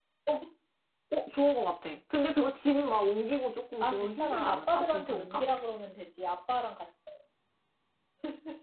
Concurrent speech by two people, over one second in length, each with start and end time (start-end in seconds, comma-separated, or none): 3.8-5.4